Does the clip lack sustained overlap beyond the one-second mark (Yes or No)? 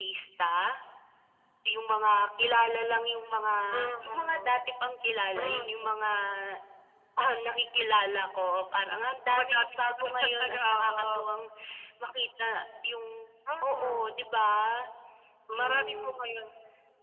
No